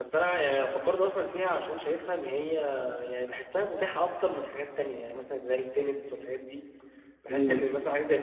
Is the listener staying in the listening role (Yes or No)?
Yes